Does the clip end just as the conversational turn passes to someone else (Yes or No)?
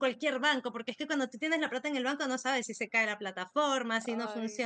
No